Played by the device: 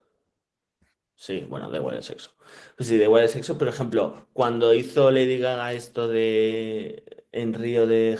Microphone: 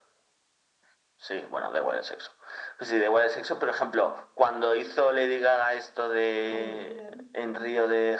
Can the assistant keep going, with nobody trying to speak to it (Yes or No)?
No